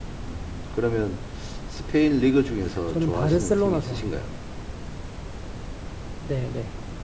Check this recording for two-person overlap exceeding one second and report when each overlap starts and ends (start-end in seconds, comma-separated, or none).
2.9-4.3